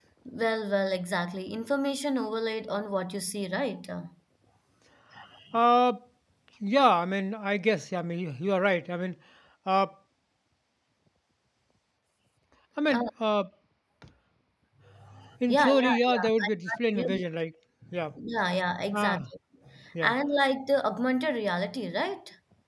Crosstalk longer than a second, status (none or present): present